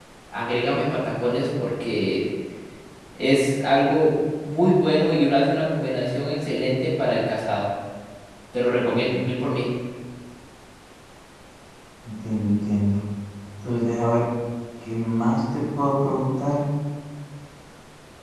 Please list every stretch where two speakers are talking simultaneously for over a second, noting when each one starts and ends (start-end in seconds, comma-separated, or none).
none